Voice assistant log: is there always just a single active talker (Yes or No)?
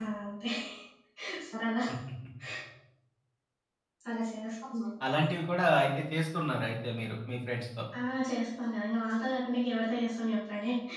Yes